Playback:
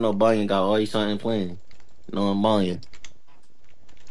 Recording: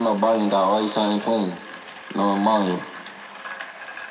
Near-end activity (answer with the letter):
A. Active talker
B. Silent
B